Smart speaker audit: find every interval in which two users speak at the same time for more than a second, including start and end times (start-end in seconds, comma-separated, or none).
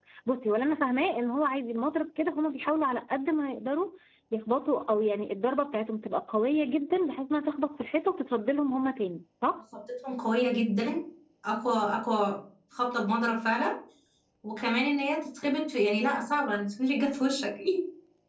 none